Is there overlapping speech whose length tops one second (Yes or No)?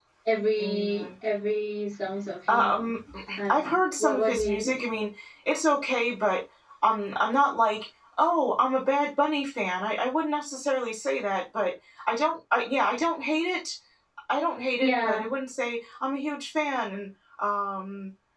Yes